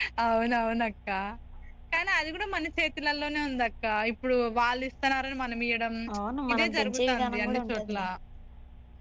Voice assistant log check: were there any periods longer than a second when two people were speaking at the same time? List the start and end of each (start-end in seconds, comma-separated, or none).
6.5-8.0